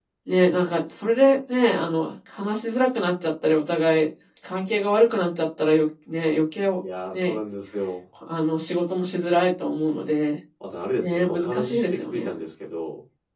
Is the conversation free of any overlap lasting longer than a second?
No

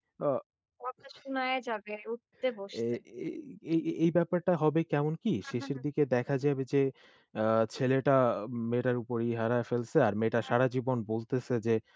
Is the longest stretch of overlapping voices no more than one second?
Yes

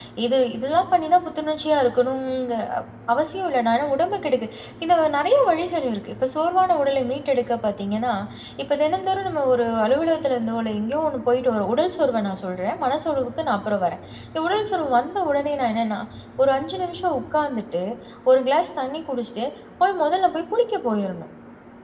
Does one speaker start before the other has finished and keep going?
No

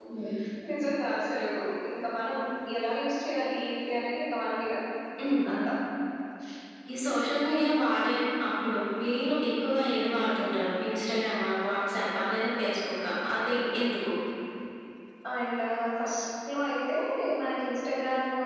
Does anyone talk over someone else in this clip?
No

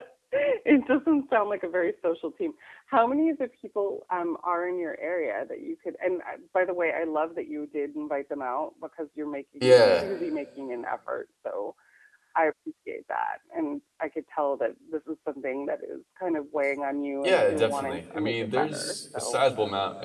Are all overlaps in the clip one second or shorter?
No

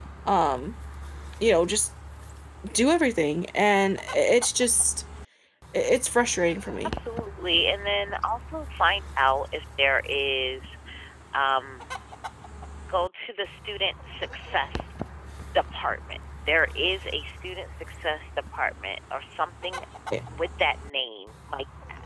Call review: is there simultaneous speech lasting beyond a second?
No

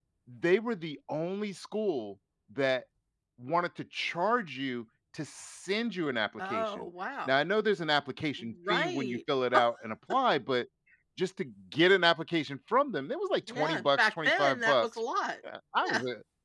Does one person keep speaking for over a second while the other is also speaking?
Yes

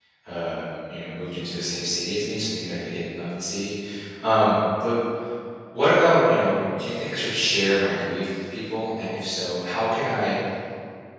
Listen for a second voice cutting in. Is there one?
No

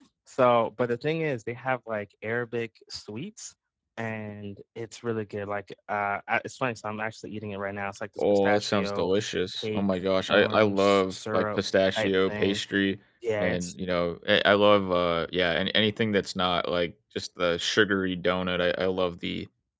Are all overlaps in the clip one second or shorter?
No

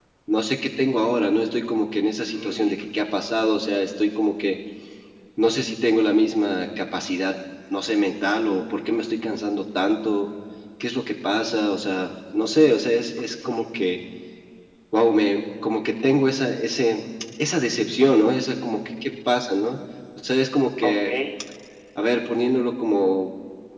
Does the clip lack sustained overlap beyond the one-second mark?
Yes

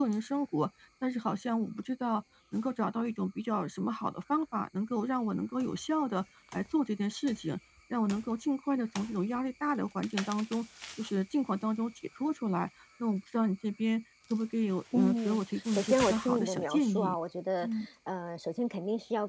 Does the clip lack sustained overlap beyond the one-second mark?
No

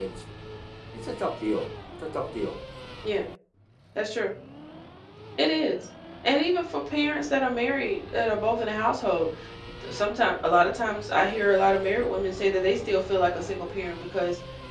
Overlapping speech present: No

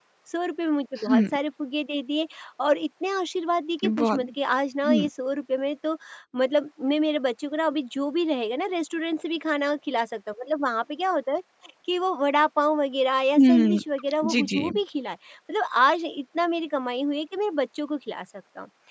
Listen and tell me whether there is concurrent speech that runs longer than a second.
No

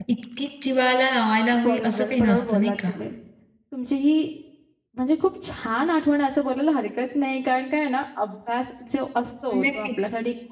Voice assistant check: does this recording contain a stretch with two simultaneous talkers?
Yes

